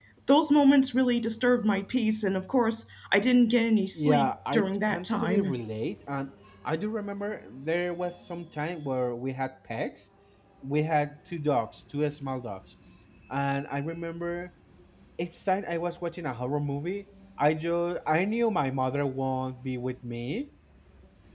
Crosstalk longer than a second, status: present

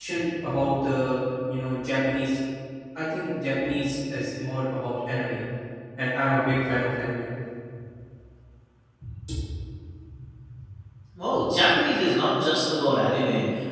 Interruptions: none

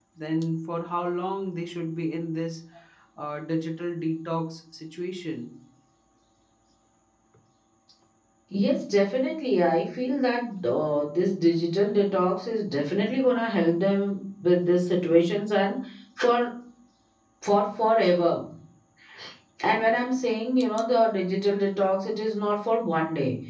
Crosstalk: none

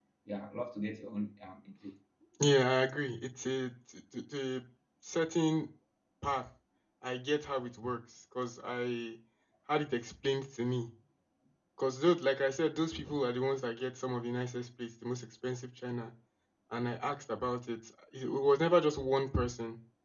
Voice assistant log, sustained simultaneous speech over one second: none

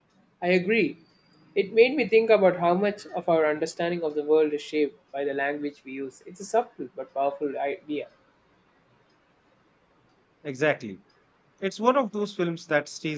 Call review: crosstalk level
none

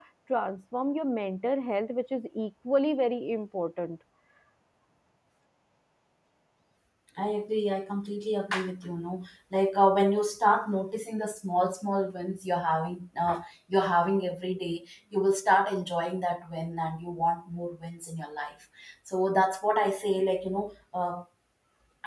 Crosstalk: none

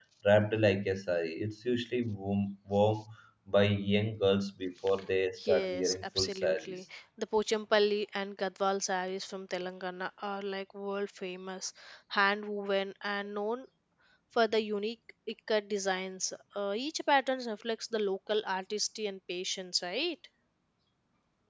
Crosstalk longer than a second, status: present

